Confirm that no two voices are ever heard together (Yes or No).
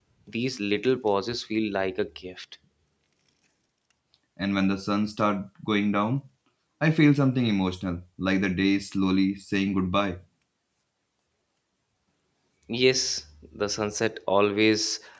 Yes